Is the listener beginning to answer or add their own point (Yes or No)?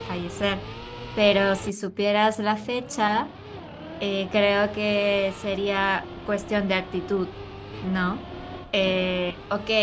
No